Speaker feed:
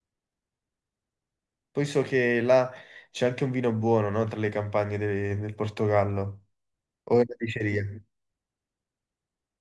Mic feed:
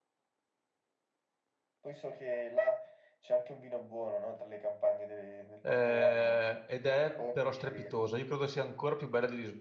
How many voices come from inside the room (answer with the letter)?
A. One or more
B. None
A